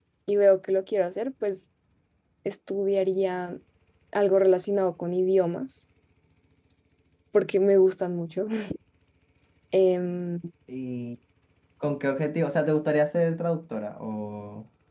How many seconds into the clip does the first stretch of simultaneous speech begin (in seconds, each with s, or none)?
none